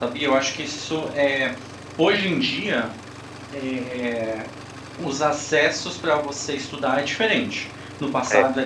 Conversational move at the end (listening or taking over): listening